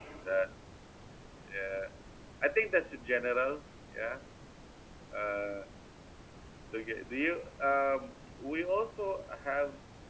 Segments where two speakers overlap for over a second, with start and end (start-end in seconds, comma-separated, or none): none